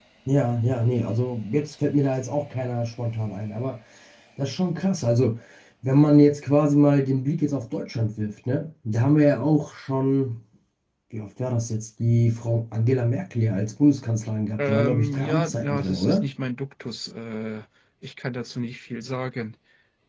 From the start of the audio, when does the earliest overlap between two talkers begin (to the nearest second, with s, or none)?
15 s